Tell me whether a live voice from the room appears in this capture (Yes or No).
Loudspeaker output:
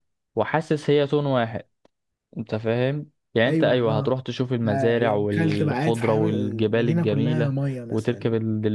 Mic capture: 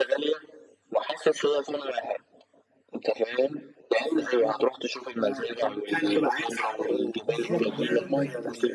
Yes